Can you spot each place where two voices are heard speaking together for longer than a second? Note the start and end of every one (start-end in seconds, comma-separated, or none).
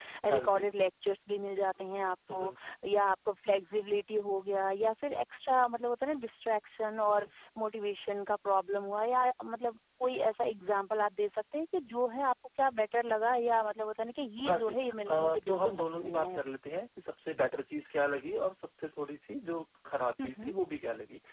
15.1-16.4